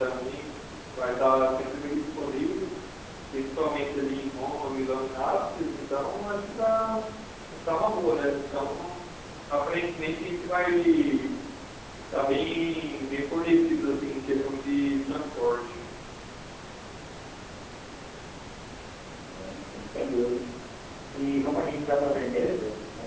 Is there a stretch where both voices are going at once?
No

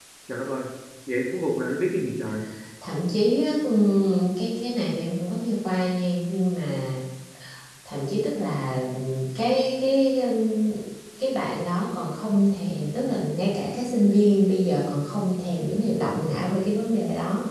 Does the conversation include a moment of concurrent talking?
No

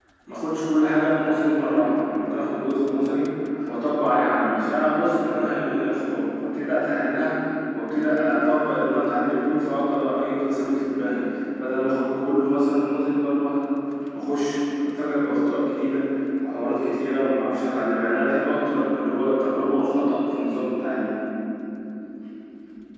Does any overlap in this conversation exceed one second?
No

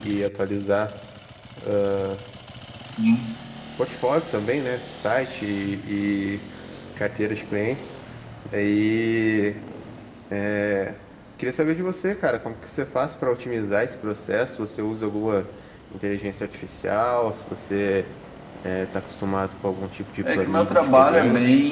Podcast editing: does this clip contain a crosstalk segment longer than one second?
Yes, from 20.2 s

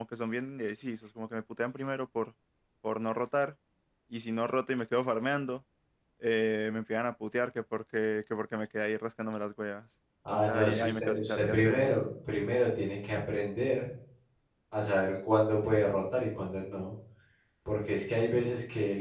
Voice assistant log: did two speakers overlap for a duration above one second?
Yes, from 10.2 s

